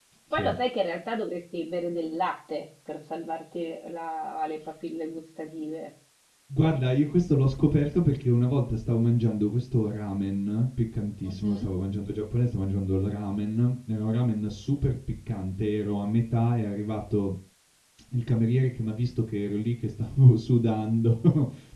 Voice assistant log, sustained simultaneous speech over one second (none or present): none